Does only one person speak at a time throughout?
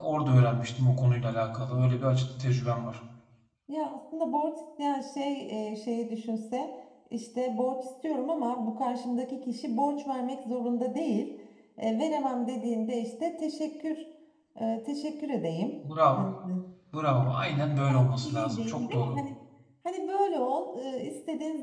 No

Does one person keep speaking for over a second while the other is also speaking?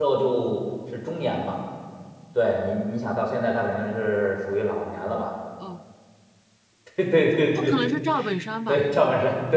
No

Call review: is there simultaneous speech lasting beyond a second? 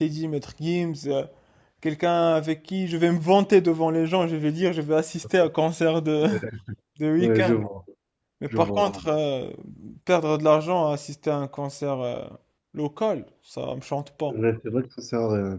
No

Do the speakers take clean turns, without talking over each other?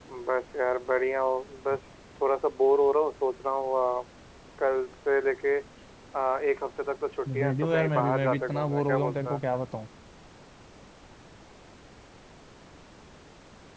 No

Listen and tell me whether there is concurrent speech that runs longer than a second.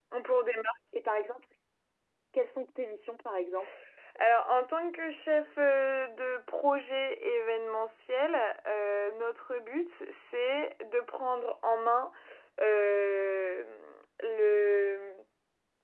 No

